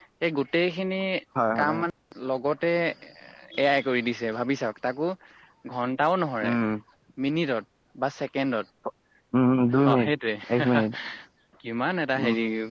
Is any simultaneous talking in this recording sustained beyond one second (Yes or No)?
No